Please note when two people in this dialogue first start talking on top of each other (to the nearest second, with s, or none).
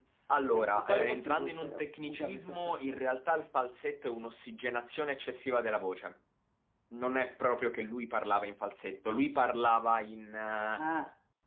1 s